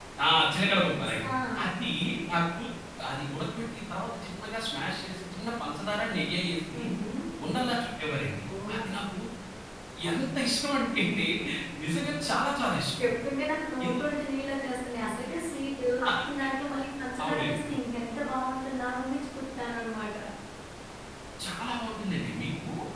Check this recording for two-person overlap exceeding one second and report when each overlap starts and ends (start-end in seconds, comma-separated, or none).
none